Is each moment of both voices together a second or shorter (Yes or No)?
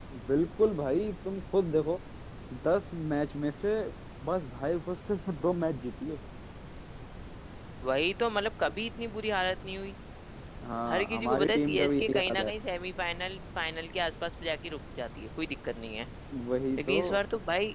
No